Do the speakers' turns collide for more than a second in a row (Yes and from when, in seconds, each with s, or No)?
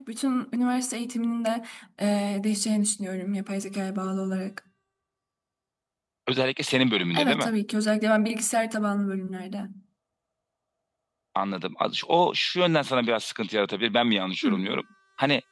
No